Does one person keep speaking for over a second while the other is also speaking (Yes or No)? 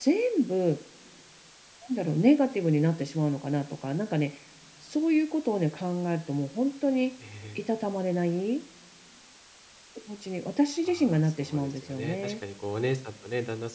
Yes